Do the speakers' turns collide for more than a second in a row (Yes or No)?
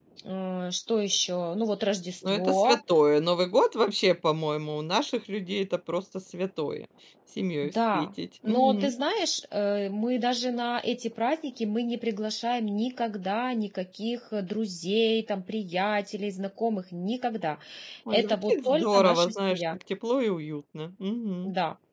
Yes